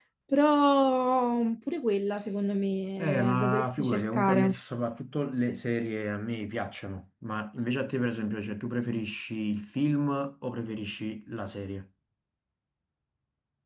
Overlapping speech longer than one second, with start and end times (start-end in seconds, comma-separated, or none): 3.0-4.6